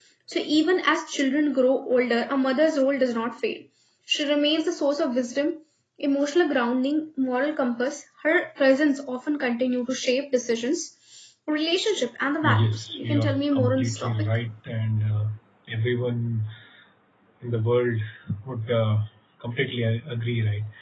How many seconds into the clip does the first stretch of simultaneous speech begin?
12 s

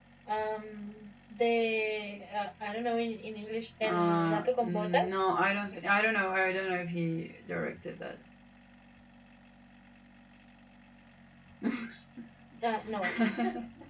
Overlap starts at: 4 s

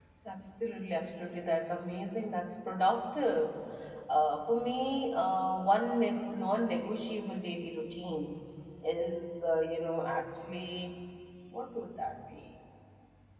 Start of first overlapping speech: none

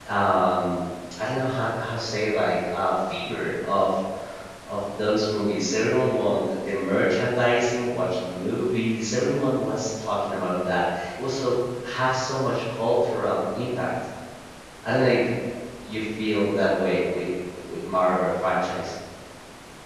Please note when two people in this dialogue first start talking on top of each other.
none

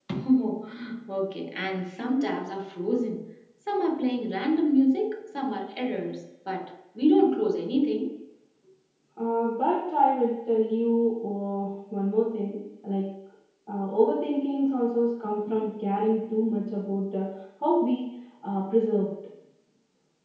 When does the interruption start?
none

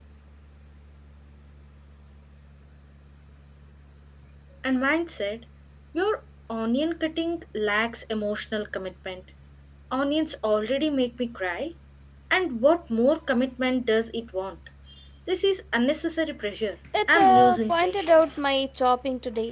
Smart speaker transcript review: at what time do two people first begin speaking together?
17 s

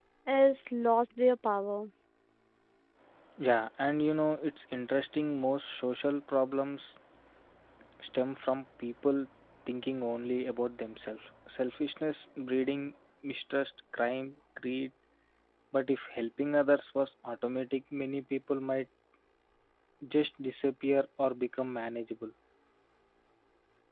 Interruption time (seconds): none

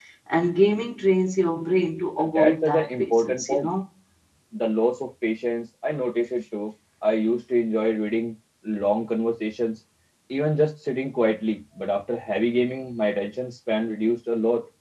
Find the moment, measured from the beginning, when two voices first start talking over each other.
2 s

